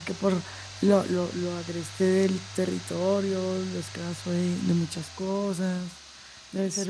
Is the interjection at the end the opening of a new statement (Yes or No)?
No